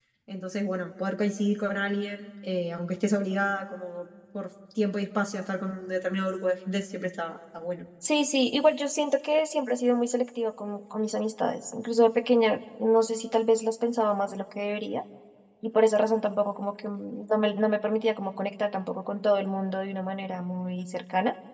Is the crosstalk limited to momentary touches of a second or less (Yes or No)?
Yes